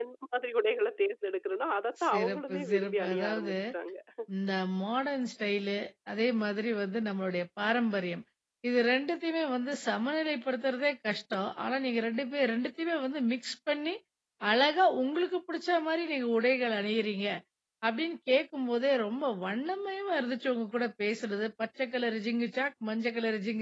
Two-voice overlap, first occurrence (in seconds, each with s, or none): 2.0 s